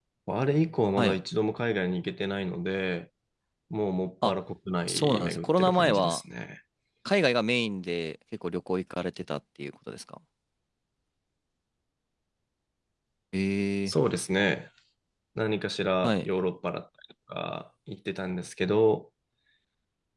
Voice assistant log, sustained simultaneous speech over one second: present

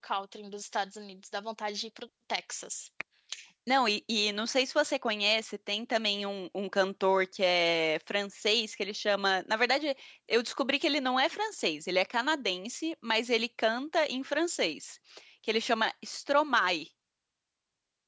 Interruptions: none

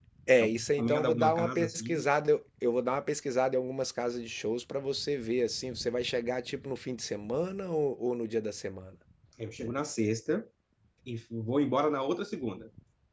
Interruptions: present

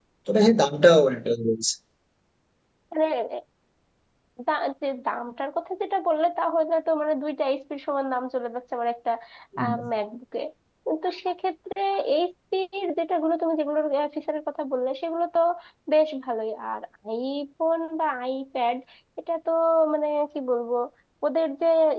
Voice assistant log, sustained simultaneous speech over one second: none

